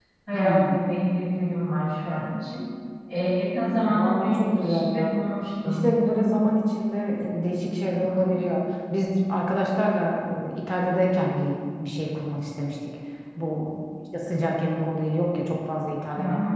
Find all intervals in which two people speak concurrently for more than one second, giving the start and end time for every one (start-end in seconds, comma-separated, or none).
3.9-5.2